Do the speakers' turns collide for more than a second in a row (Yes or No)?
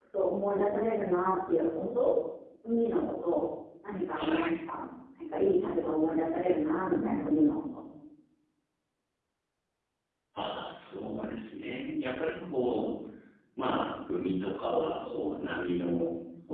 No